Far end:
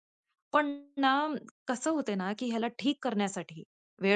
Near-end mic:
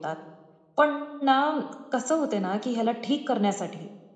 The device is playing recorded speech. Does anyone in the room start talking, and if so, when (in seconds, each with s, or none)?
none